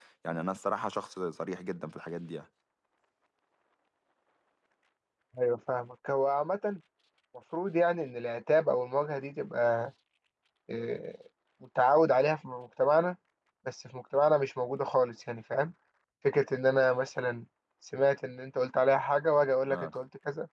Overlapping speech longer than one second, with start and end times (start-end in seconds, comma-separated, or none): none